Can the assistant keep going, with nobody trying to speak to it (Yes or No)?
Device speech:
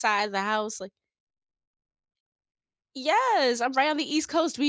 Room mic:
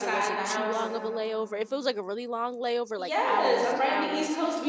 No